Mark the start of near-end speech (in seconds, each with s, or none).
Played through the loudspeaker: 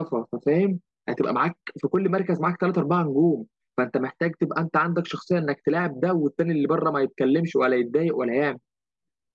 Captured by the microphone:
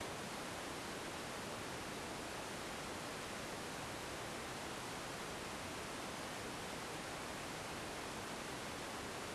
none